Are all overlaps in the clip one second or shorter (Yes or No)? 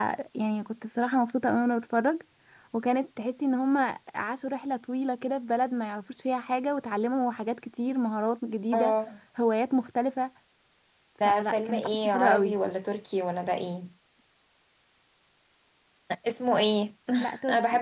No